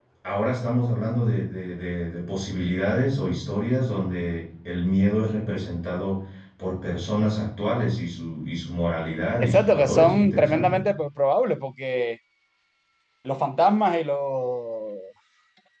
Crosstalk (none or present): present